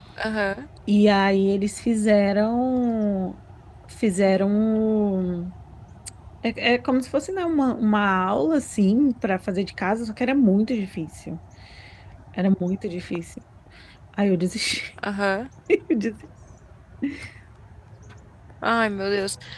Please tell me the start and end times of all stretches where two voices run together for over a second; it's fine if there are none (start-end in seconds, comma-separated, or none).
none